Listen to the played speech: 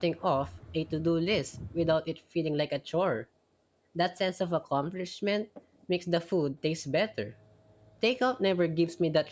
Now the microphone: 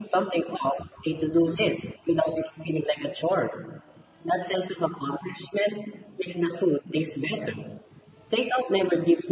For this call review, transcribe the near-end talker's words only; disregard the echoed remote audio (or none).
none